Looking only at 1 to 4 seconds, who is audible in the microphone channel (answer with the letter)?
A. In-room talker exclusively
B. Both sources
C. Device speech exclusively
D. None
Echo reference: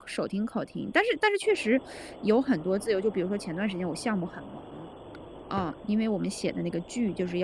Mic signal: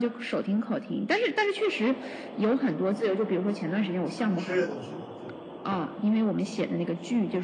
C